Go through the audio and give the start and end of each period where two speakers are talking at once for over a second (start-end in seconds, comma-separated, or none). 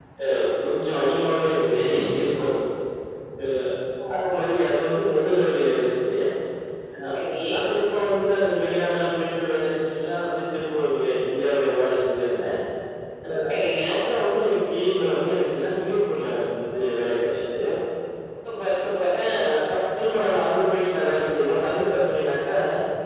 none